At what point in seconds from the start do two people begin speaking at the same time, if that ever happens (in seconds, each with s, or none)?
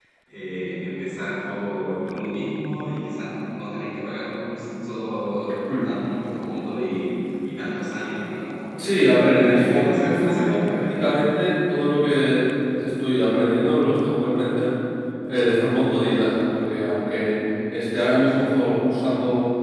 8.8 s